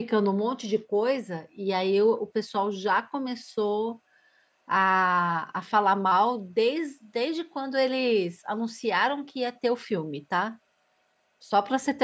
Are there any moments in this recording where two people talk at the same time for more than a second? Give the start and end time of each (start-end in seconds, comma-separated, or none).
none